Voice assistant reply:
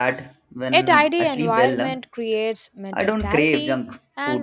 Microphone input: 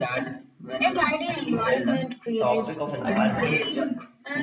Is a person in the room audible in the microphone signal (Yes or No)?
Yes